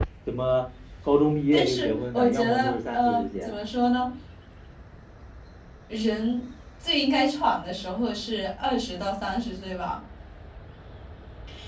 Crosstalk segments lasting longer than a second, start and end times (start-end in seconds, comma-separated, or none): 1.5-3.6